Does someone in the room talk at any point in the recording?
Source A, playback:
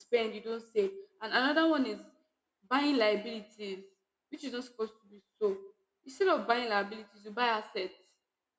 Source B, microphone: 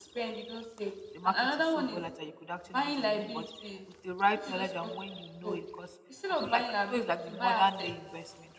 Yes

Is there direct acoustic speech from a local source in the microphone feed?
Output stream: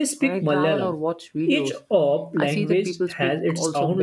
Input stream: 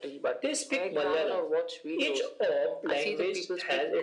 No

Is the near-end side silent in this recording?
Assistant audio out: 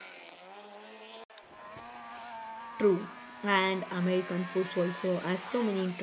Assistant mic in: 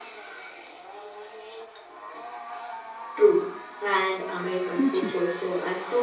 No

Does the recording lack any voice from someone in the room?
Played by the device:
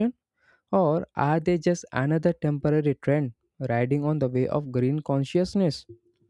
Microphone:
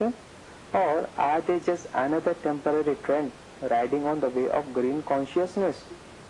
Yes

